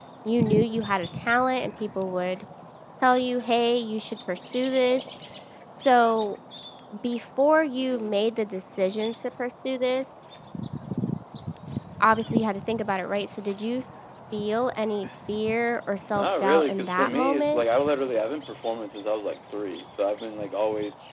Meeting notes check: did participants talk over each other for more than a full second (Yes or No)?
Yes